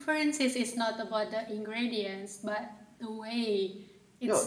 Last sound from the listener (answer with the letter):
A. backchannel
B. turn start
B